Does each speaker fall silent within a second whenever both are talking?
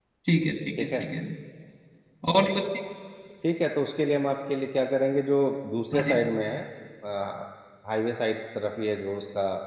Yes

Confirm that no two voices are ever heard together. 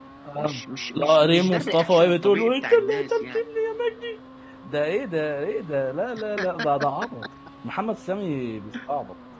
No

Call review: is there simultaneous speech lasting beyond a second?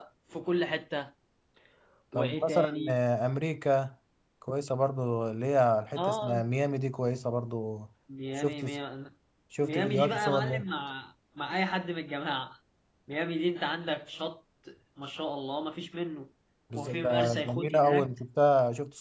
Yes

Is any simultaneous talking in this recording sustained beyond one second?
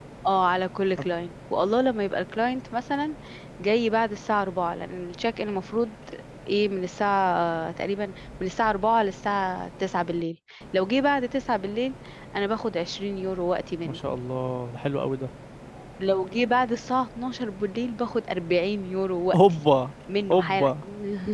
No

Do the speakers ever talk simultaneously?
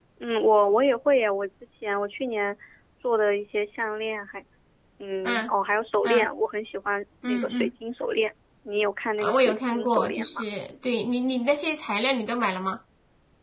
Yes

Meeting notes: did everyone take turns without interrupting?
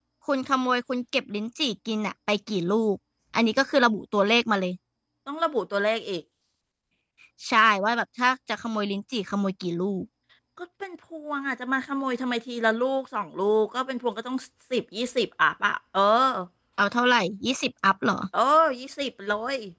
Yes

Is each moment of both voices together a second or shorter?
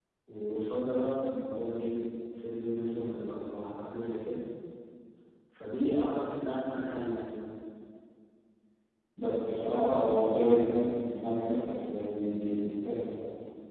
Yes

